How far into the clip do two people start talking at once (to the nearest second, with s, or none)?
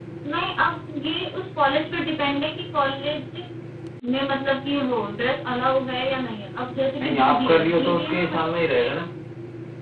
7 s